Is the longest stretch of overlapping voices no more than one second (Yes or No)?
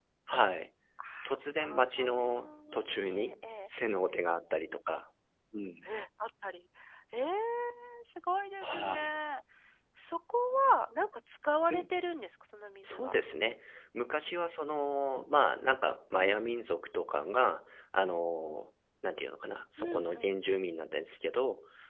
No